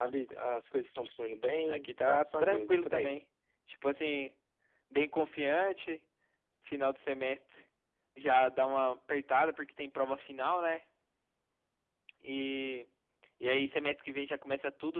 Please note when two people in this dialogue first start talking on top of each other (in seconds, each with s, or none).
1.7 s